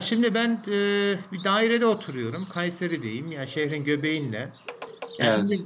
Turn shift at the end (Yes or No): No